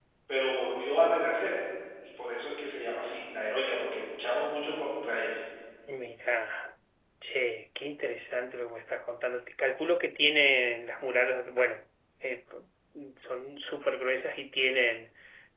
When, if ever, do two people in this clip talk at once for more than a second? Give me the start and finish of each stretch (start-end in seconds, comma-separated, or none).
none